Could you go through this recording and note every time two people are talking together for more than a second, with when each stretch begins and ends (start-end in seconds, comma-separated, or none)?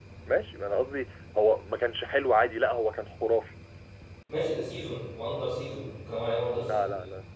none